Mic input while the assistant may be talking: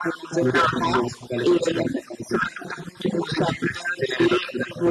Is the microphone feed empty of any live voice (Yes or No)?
Yes